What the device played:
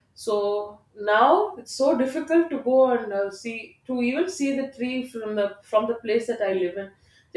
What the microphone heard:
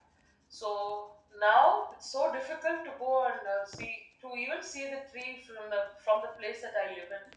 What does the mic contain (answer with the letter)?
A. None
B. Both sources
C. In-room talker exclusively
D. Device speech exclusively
D